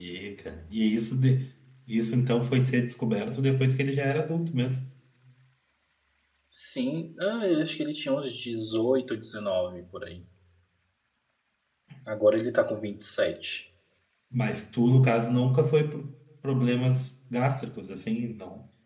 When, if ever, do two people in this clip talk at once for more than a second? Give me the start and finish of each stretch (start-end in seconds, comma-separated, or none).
none